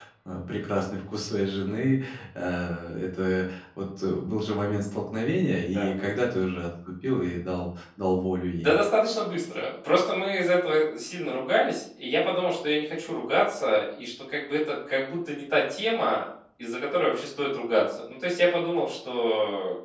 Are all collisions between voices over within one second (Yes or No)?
Yes